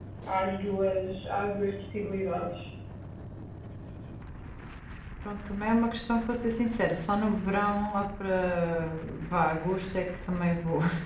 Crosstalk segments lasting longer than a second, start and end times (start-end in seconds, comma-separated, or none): none